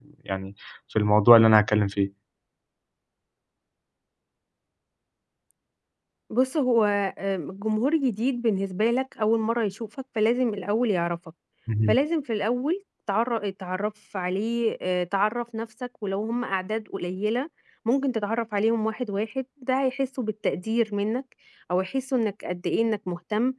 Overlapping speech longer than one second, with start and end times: none

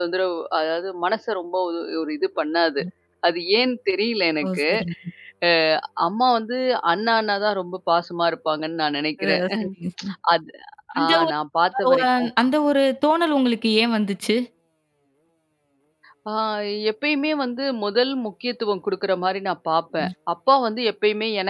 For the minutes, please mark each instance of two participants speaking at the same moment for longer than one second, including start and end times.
none

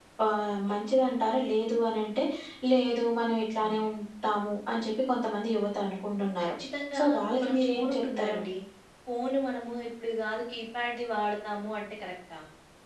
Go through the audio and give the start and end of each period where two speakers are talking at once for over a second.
7.0-8.4

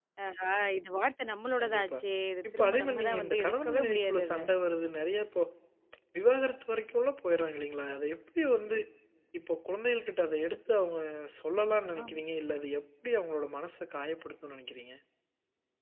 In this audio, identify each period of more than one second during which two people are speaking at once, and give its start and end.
2.5-4.4

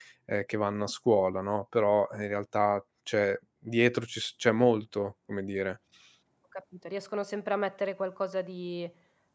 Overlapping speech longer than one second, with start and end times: none

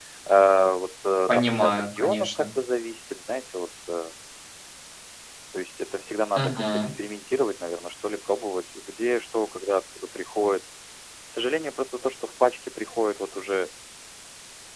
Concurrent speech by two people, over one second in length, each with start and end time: 1.3-2.5

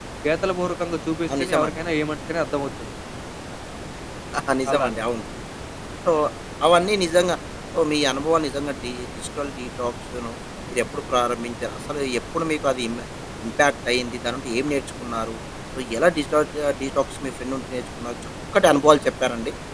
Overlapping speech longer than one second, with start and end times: none

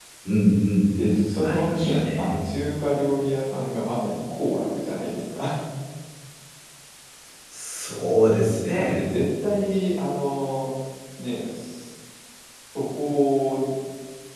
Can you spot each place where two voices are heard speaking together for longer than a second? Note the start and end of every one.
0.9-2.5

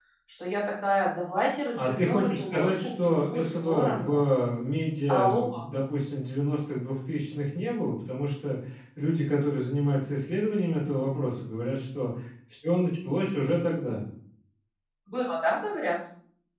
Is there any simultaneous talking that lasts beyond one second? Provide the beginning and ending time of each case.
1.7-4.2

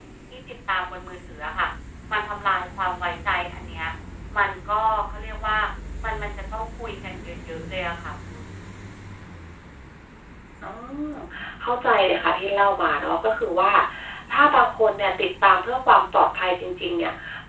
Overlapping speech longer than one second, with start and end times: none

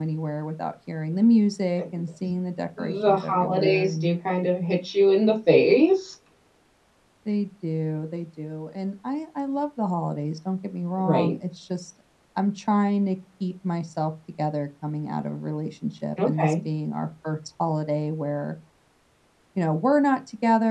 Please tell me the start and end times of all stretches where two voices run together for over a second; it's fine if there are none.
2.8-4.0

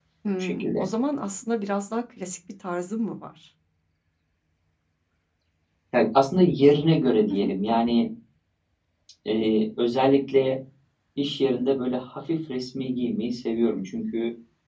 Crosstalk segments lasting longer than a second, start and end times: none

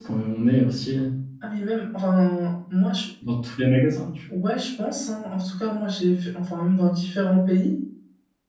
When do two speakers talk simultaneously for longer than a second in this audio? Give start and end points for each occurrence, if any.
none

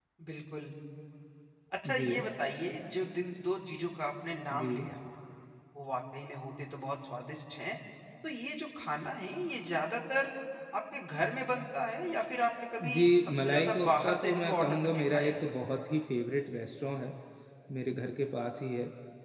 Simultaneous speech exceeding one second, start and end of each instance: 12.8-15.4

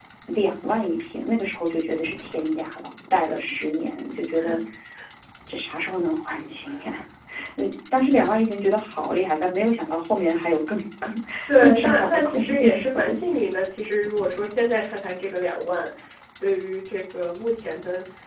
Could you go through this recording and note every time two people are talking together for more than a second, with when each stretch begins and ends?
11.6-13.2

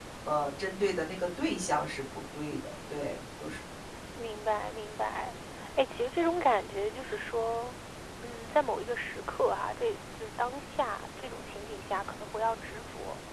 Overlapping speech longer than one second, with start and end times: none

